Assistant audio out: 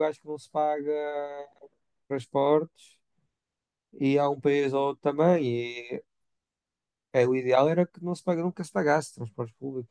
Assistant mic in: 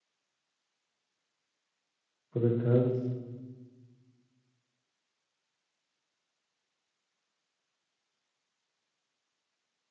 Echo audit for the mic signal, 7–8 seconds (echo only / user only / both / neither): neither